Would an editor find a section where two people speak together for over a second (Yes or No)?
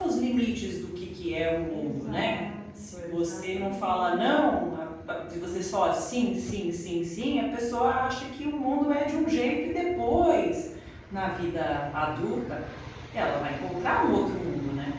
Yes